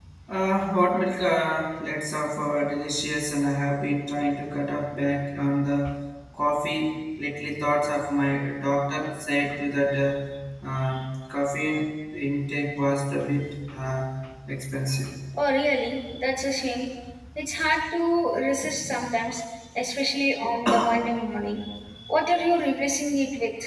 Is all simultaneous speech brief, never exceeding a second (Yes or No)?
Yes